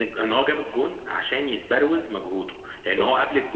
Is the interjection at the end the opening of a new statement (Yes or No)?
No